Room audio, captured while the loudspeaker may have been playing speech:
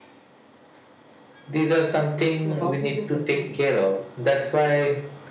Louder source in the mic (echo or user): echo